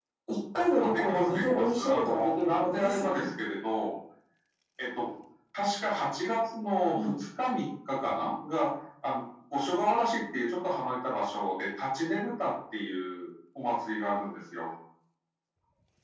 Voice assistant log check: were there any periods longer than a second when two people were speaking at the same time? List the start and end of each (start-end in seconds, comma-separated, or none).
0.8-3.3